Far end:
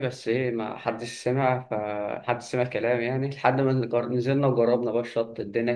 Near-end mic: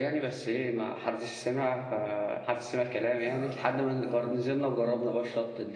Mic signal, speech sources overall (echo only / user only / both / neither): both